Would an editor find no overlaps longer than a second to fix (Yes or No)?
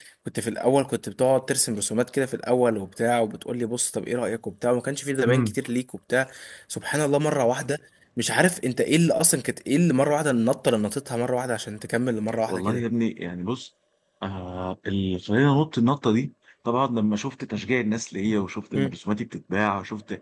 Yes